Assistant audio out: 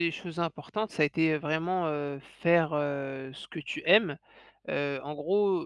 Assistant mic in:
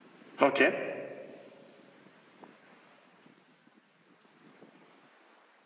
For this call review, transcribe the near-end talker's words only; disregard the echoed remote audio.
OK.

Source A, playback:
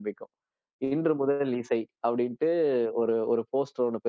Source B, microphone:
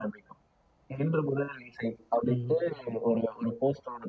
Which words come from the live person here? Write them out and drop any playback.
ம்.

